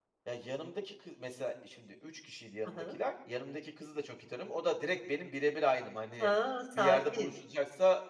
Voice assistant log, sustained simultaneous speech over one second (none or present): none